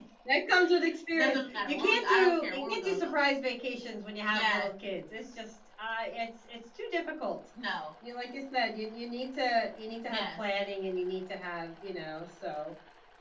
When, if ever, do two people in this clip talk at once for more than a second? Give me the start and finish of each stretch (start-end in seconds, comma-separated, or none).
1.1-3.1